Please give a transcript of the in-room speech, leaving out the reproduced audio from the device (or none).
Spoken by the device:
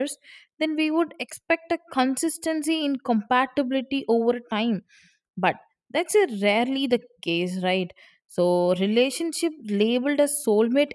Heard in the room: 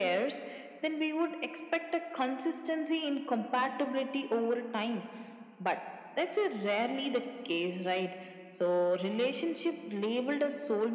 none